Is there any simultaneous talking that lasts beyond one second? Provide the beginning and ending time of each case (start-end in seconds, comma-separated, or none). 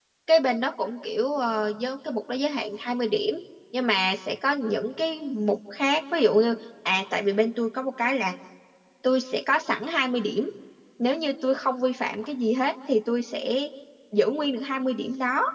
none